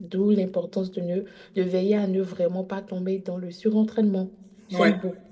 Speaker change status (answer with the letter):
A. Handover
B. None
B